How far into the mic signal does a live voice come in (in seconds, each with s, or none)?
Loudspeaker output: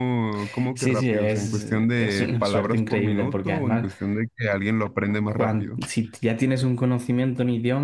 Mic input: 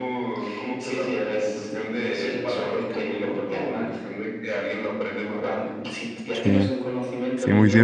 6.3 s